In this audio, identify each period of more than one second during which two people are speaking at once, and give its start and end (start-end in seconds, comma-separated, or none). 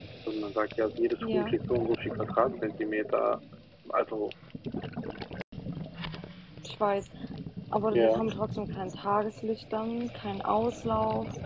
none